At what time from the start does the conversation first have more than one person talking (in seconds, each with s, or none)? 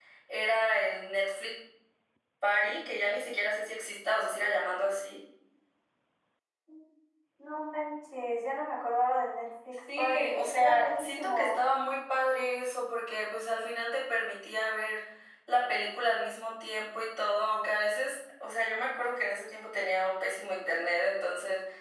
9.9 s